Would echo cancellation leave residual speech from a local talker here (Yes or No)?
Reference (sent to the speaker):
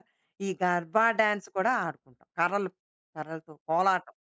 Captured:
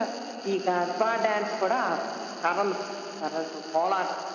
No